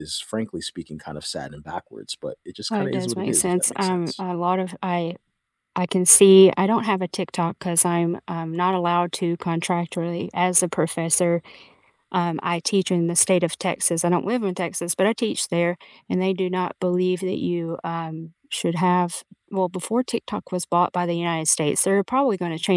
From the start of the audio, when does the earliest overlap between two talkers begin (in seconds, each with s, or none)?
2.7 s